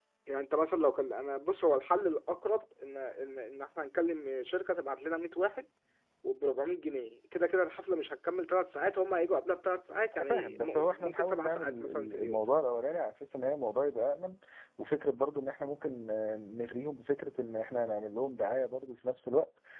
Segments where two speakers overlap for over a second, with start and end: 10.2-12.4

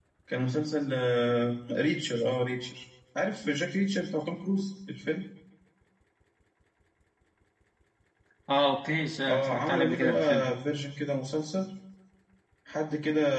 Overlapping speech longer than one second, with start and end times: 9.3-10.5

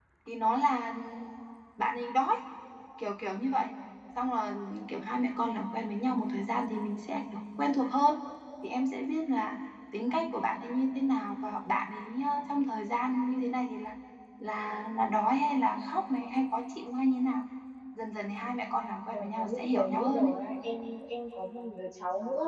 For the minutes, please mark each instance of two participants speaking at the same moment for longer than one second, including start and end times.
19.1-20.3

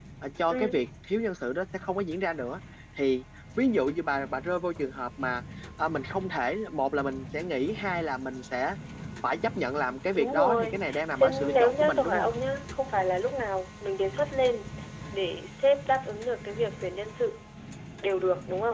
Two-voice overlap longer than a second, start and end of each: 10.1-12.3

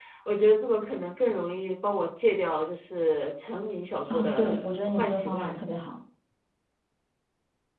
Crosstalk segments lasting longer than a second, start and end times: 4.1-5.6

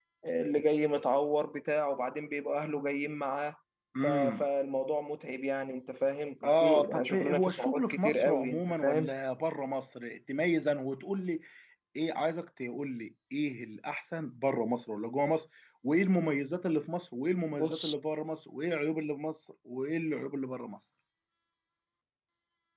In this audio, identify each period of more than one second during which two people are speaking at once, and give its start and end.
6.4-9.1

